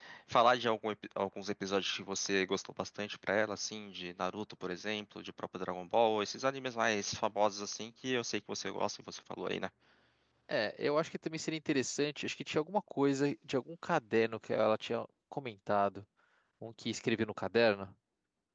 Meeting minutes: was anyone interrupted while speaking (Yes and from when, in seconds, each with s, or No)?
No